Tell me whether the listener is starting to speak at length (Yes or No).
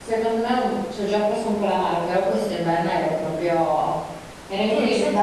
Yes